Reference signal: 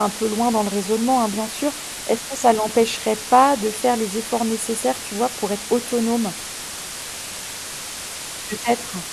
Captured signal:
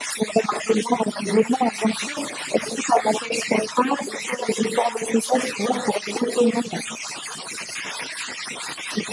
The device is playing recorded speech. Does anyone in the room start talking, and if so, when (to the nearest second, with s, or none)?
none